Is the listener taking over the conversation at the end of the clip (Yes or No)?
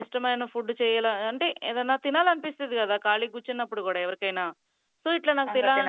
No